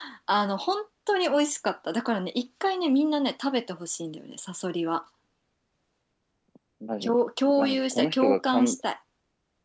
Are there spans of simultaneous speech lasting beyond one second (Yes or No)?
Yes